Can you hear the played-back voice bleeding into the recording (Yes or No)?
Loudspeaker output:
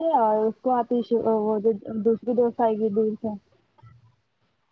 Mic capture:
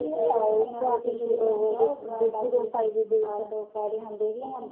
Yes